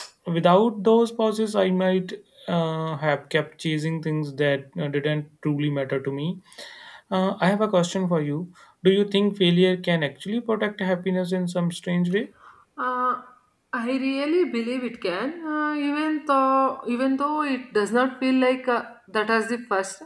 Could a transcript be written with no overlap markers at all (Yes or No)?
Yes